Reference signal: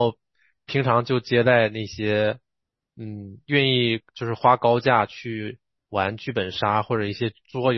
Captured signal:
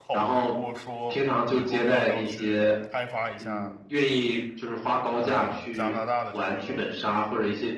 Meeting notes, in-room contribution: present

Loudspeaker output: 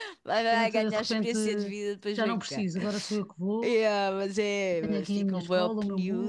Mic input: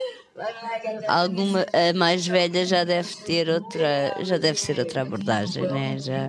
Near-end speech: present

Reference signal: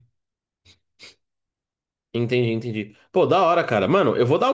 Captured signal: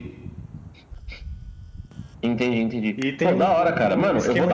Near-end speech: present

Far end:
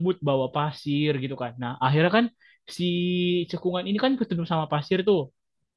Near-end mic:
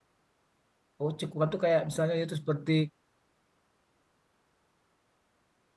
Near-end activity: present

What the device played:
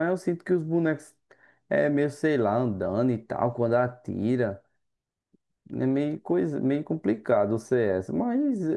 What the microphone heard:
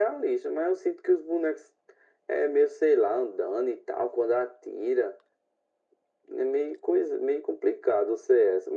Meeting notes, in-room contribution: none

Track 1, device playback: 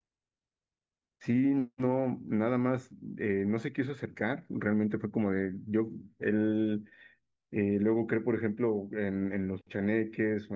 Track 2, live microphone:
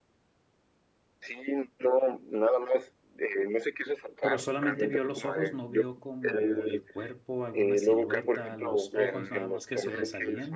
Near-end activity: present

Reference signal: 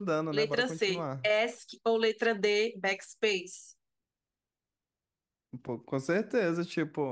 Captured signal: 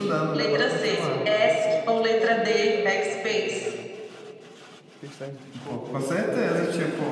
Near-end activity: present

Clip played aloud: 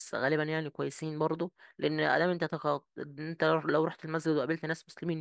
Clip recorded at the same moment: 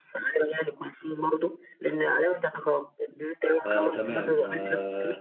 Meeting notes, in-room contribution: present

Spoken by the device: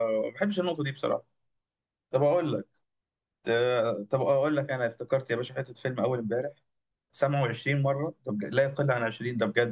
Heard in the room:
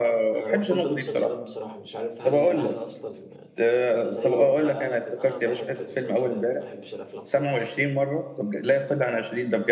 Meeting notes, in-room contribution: present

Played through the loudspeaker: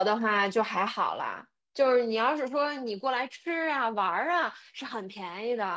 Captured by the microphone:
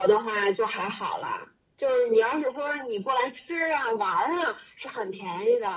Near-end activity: none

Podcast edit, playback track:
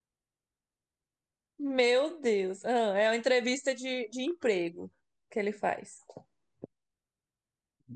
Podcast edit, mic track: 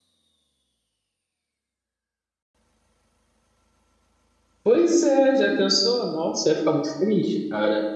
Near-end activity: present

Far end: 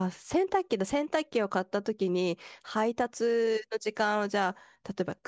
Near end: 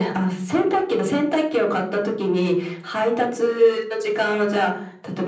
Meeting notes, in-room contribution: none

